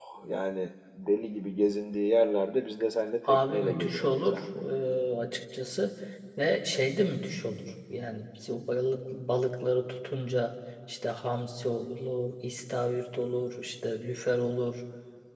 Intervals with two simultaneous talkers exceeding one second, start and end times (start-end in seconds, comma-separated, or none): 3.3-4.6